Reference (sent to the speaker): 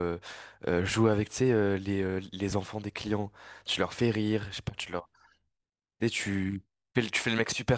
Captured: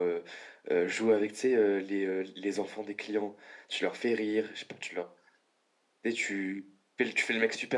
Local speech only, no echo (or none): none